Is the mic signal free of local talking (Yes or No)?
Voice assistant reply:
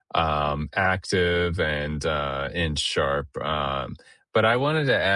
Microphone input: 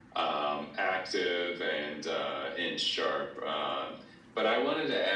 Yes